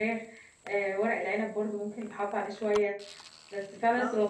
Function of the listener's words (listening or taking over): listening